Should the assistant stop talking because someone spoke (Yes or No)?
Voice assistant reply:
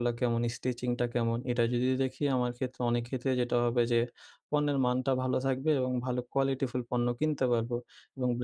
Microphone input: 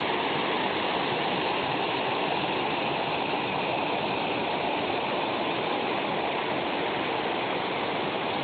No